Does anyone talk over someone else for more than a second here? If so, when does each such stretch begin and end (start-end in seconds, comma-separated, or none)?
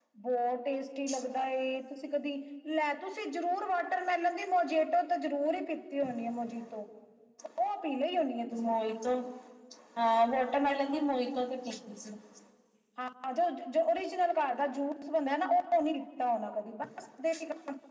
none